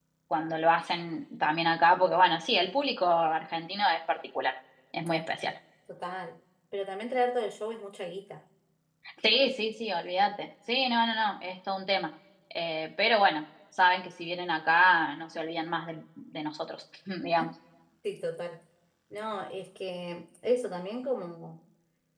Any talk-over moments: No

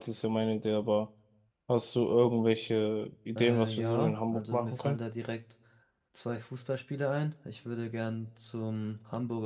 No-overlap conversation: No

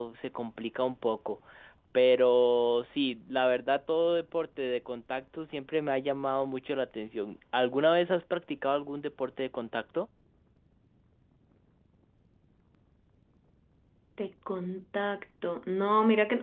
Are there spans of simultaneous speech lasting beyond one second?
No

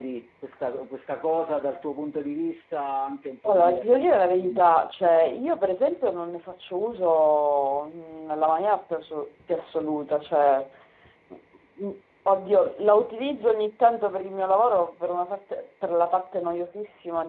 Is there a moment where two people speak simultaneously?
Yes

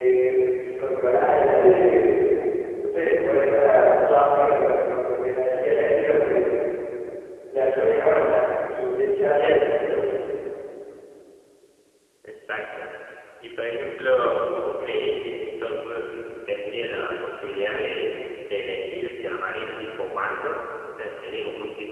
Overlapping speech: No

